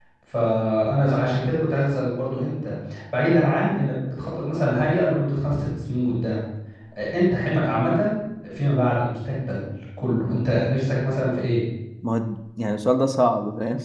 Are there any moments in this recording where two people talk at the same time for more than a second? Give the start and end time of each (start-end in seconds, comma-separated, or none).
none